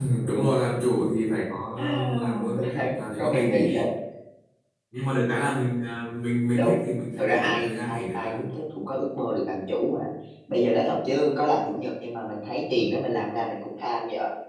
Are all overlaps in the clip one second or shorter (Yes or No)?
No